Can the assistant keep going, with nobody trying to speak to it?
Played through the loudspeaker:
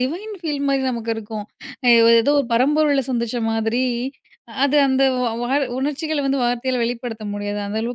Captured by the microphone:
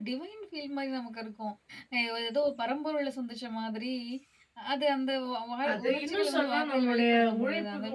No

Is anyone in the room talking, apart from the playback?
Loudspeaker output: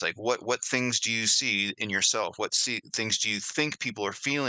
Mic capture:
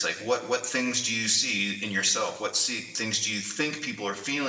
No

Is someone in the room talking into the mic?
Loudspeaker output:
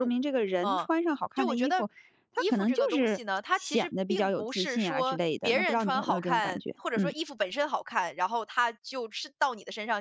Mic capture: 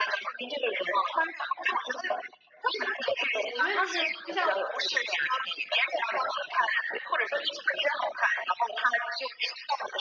Yes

